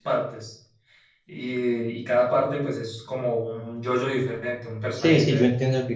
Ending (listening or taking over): taking over